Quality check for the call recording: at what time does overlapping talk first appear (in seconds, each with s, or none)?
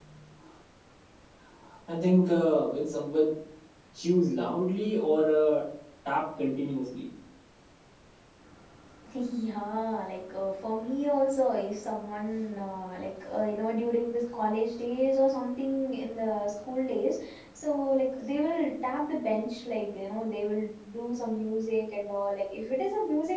none